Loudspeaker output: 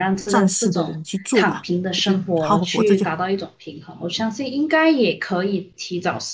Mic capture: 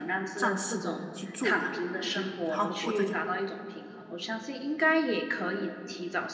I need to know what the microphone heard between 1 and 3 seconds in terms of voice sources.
echo only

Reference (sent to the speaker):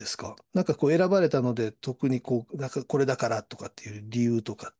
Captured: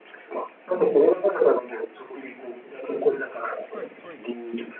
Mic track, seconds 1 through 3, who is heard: echo only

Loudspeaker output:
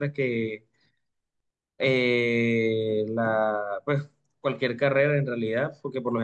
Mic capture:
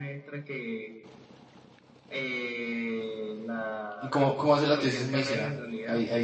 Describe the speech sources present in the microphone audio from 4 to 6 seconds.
both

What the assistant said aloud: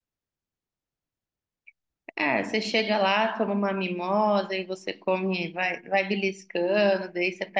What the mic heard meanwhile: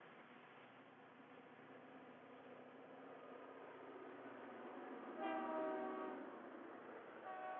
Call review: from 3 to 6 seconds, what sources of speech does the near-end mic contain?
neither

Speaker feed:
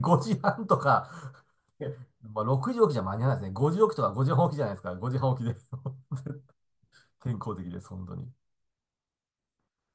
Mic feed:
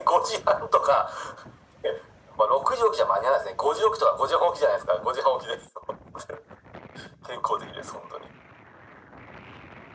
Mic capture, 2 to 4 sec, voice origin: echo only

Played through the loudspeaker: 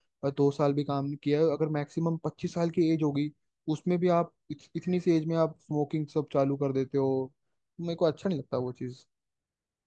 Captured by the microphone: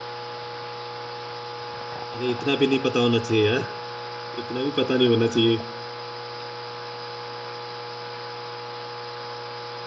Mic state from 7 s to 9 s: neither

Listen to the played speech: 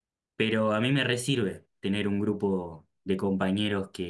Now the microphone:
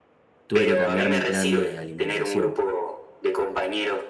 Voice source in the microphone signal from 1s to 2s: both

